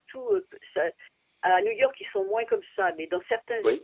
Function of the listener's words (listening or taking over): listening